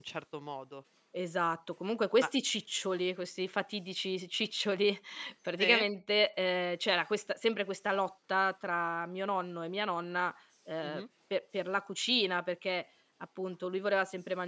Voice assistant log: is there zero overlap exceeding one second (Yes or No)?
Yes